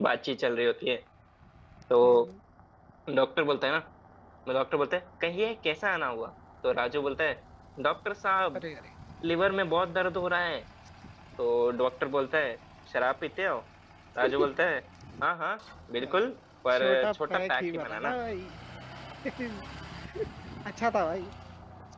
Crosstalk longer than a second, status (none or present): present